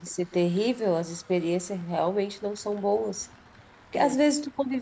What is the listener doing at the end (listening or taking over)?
listening